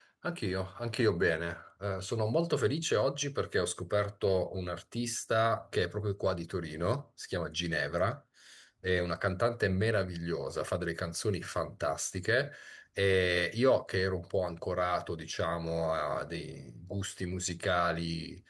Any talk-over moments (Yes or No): No